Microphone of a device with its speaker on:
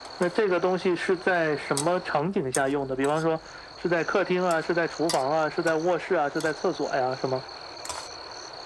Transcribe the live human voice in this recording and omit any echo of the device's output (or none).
none